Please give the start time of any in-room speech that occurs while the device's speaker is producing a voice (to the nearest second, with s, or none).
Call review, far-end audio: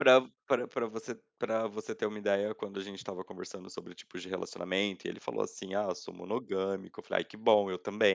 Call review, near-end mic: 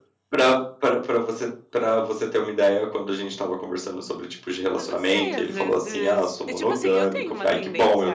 5 s